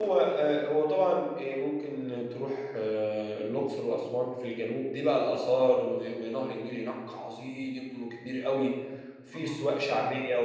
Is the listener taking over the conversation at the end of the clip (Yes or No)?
No